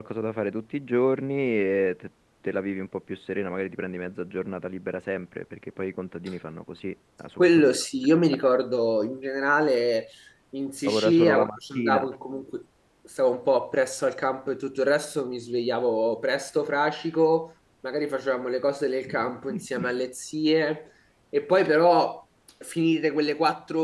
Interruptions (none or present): present